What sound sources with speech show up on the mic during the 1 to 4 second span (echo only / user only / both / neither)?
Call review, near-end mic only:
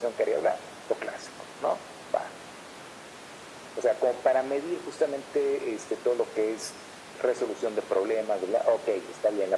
echo only